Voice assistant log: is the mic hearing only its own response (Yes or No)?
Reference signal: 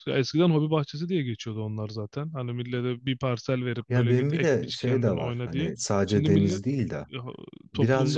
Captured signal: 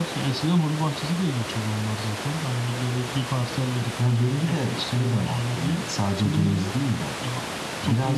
Yes